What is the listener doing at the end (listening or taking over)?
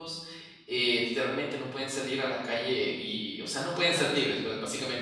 listening